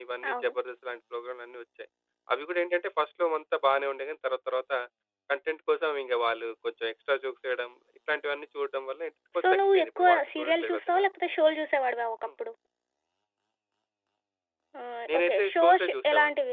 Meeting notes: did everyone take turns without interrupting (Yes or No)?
No